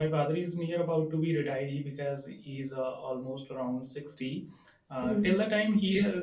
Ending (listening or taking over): listening